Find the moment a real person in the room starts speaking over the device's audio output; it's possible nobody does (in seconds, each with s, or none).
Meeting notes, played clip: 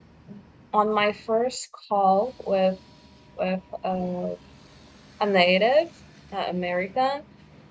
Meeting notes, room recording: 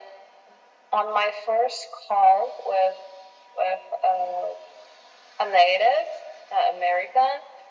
none